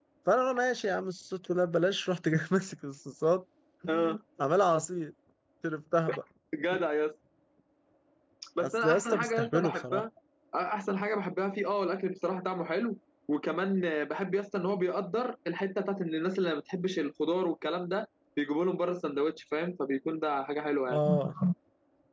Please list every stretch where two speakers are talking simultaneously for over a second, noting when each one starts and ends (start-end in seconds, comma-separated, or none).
8.6-10.0